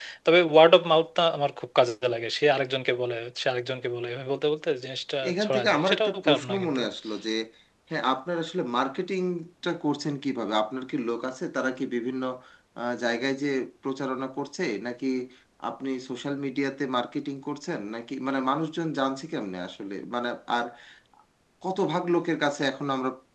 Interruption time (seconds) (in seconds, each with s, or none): 5.2 s